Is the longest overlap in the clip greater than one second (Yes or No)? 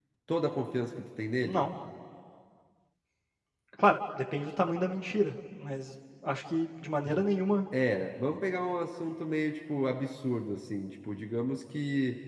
No